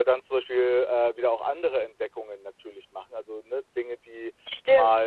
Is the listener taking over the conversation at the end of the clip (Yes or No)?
Yes